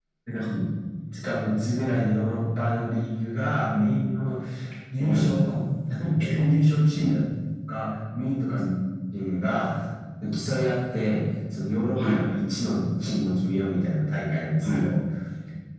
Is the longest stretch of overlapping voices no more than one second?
Yes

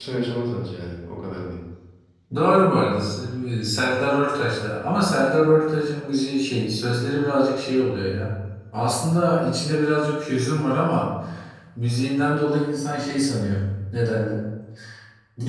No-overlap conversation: Yes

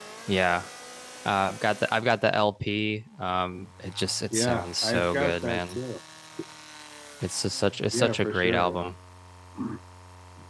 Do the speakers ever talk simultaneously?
Yes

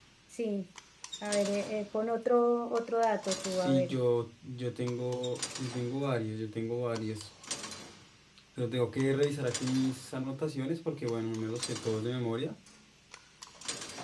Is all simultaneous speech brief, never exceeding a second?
Yes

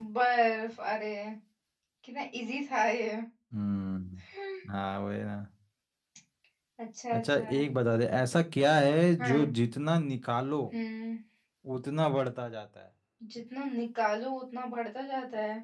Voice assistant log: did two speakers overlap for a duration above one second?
No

